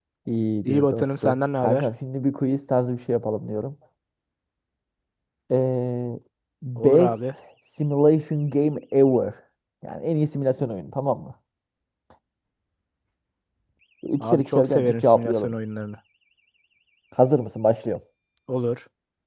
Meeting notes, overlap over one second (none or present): present